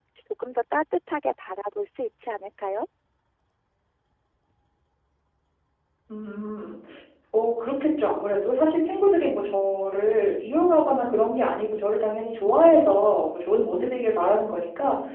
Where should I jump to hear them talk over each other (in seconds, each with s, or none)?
none